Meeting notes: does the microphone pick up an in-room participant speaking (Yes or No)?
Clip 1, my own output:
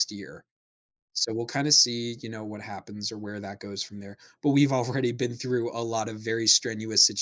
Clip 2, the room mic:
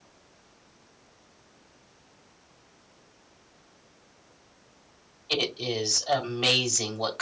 Yes